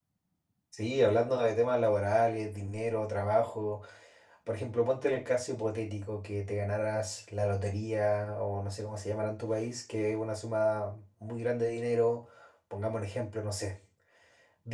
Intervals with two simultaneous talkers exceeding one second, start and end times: none

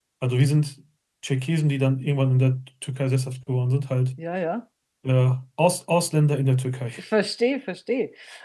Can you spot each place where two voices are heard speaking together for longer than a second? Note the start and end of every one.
none

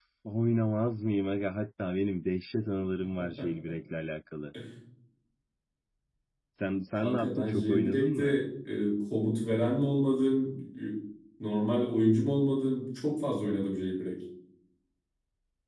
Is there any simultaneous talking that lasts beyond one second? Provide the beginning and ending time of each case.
7.0-8.4

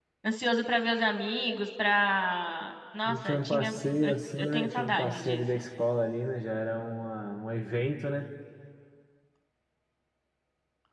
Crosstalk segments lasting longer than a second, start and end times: 3.0-5.4

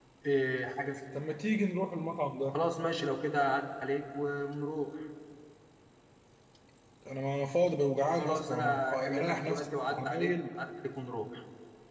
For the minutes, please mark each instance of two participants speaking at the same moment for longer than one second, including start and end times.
8.1-10.4

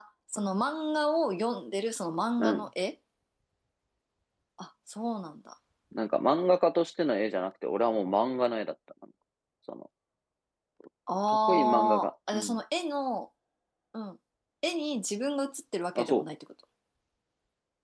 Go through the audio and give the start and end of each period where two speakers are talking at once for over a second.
11.3-12.6

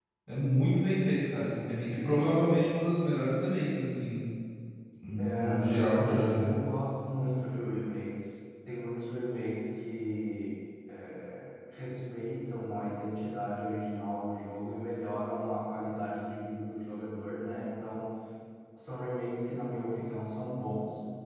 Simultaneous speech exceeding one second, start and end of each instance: 5.2-6.5

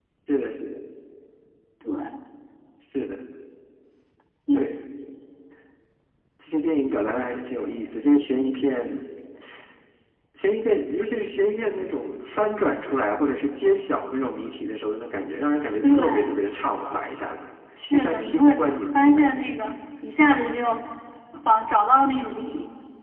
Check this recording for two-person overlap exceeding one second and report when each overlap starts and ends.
17.9-19.4

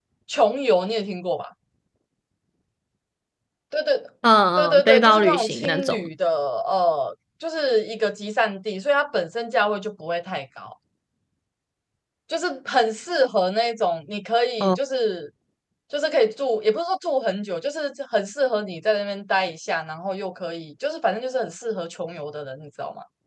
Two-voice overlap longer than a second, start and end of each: 4.6-6.0

